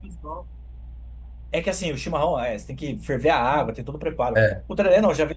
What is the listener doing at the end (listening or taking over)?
listening